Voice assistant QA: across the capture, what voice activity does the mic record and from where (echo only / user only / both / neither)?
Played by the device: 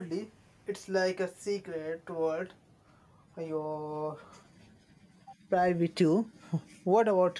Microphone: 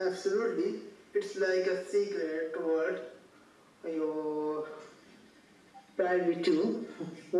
echo only